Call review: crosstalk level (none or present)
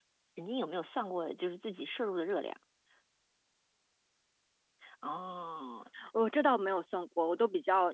none